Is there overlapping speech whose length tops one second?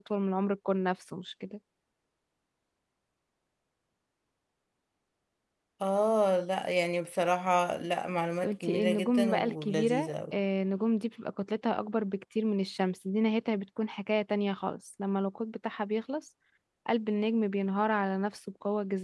Yes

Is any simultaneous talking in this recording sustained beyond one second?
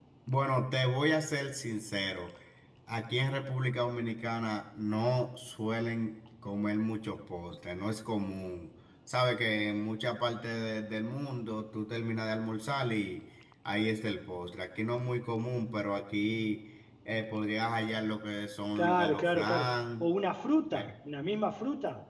Yes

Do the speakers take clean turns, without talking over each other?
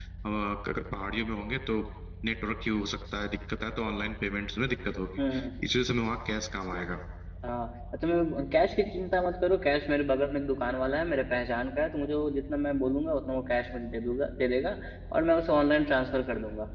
Yes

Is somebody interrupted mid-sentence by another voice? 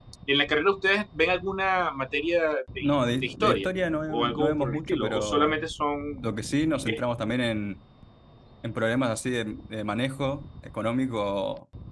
Yes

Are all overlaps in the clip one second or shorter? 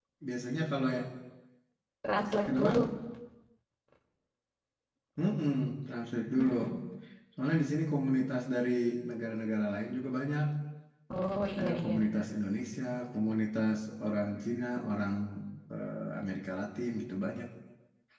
Yes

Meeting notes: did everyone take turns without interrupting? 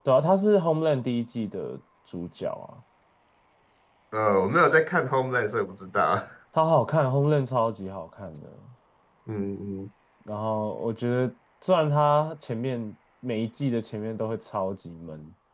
Yes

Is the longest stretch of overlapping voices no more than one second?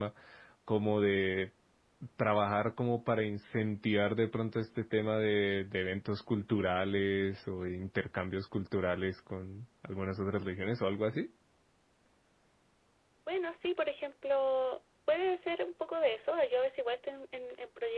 Yes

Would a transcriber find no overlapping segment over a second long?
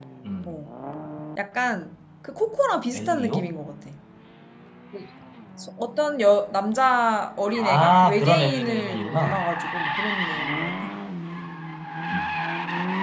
No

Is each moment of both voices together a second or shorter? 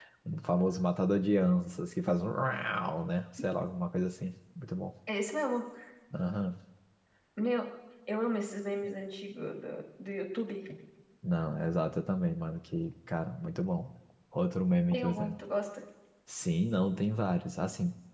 Yes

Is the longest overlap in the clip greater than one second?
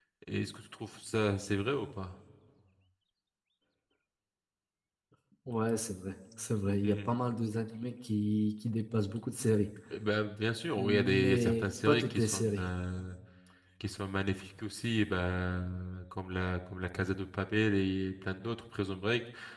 Yes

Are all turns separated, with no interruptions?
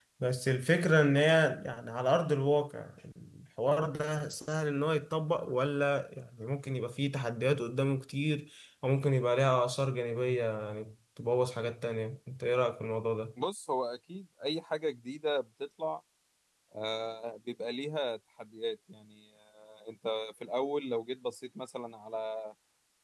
Yes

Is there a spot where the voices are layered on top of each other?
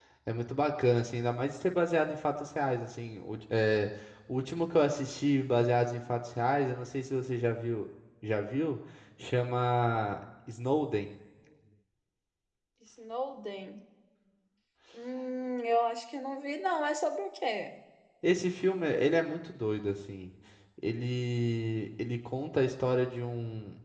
No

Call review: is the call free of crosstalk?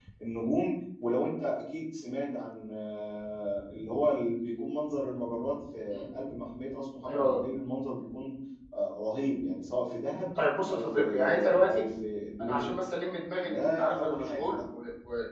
No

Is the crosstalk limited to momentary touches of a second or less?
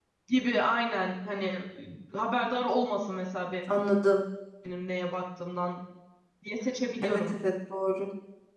Yes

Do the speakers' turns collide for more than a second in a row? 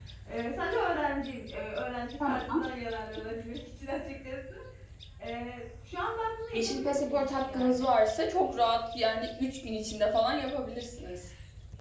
Yes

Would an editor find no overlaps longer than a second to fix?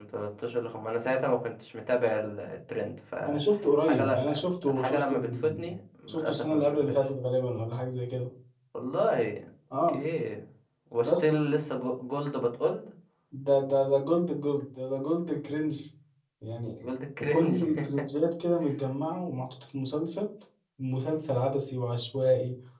No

